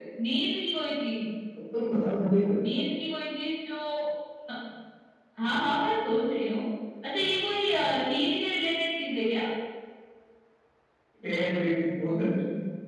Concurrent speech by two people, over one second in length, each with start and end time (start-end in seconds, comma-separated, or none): none